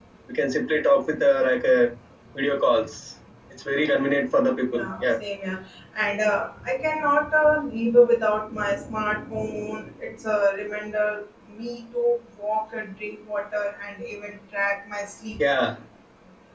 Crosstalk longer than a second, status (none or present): none